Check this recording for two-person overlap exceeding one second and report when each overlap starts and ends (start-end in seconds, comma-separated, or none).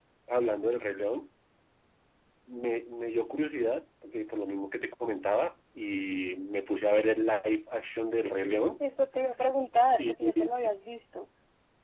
none